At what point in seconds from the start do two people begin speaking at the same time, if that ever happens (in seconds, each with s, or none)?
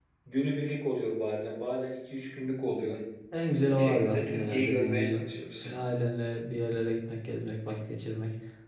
3.7 s